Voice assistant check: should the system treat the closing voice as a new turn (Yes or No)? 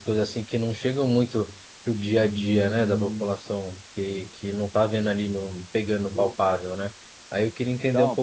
No